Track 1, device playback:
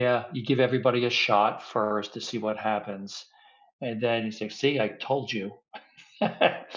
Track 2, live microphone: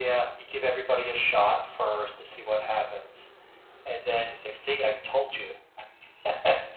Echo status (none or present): present